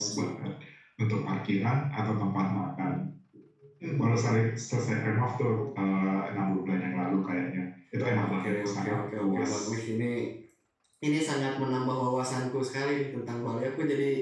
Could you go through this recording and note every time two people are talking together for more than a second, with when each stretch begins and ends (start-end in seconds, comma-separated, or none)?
8.3-9.5